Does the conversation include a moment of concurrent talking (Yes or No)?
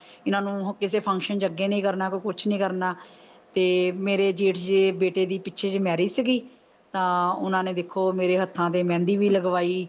No